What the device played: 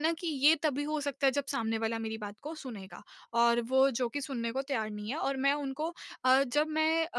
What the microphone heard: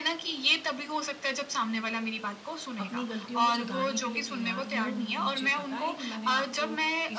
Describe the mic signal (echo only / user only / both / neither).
both